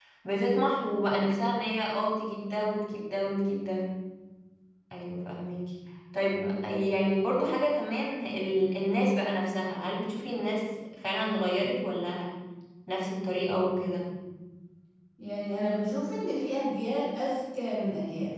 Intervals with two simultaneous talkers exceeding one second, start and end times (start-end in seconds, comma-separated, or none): none